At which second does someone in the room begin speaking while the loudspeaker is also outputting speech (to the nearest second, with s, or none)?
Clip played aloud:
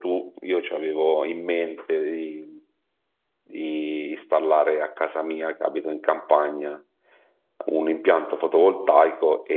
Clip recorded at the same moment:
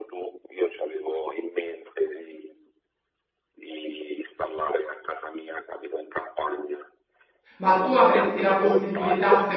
8 s